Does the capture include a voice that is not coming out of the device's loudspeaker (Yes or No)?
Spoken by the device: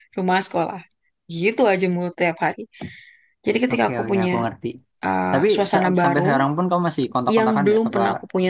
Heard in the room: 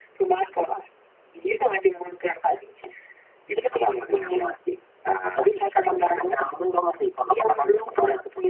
No